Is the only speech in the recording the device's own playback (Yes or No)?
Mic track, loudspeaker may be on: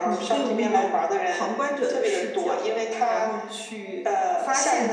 No